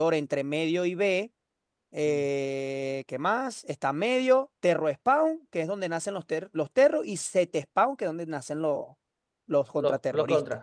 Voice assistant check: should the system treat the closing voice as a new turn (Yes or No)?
Yes